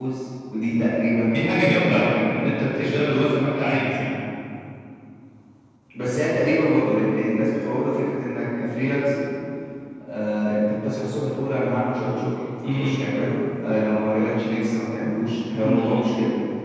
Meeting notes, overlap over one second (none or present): none